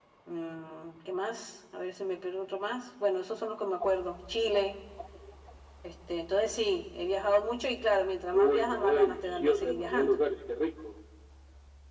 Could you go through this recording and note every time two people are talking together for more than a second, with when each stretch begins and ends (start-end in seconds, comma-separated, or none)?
8.3-10.2